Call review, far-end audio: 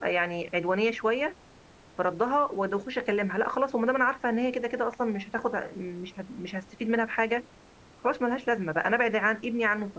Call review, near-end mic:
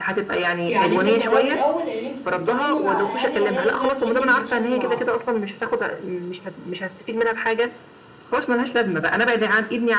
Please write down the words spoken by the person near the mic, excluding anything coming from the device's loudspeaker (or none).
يعني انت تجربي الاول ان انت تتكلمي مع اهالي العيال اللي اللي ابنك بيتخانق معاهم